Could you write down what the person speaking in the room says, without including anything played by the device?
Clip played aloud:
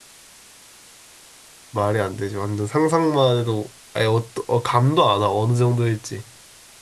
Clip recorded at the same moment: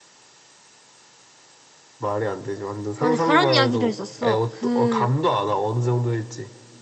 맞아, 그런 이야기도 있었어. 그,

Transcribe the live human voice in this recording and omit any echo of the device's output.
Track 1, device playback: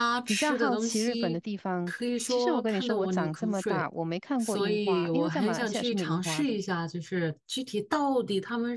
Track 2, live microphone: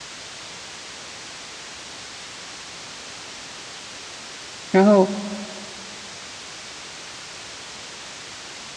然后

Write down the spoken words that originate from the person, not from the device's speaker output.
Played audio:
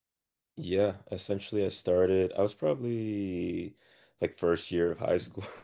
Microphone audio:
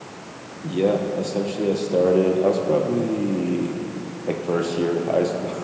none

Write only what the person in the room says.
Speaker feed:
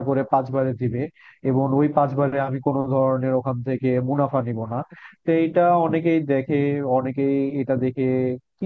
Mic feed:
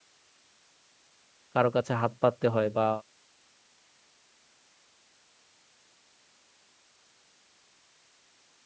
কারো কাছে হাত পাততে হয় বা

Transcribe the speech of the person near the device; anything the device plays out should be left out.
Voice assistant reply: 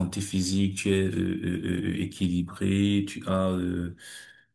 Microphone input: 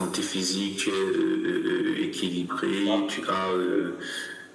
c'est ça. Oui.

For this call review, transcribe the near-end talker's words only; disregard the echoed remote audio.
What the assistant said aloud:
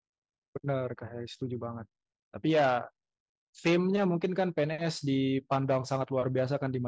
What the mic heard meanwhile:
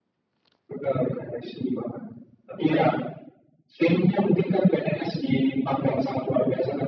none

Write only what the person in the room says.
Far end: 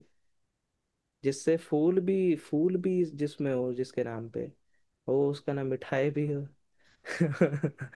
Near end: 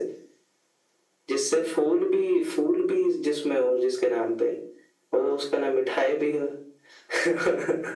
none

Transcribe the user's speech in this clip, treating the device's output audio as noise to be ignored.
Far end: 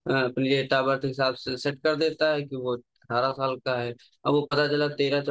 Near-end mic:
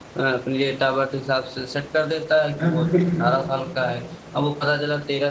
हाँ बिल्कुल

